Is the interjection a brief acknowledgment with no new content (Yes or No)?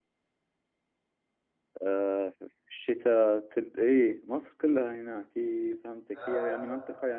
Yes